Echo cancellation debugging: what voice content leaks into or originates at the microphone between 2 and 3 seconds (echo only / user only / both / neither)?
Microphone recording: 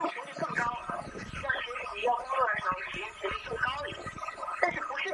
echo only